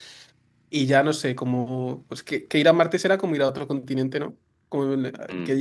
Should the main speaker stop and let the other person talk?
No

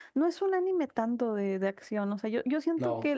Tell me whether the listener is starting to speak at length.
No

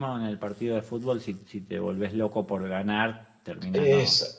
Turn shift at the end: Yes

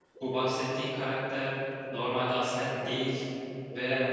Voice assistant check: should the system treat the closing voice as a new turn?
No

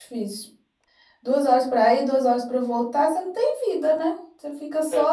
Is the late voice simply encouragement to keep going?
Yes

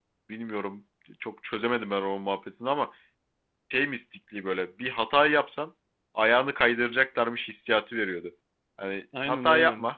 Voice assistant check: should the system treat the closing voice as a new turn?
No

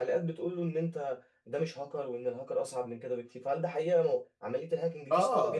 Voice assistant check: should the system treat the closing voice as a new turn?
Yes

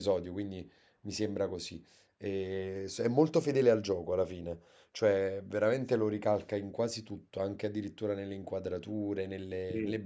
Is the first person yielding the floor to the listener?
No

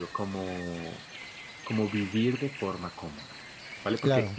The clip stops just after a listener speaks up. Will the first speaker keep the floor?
Yes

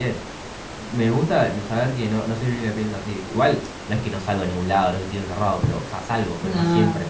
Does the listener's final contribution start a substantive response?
No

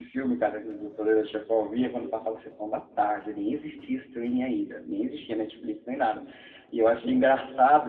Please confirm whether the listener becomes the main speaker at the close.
No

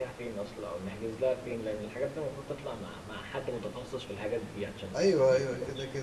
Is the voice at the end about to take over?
Yes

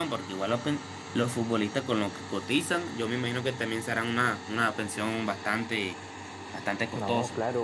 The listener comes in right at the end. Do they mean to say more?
Yes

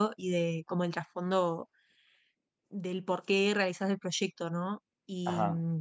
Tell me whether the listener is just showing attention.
Yes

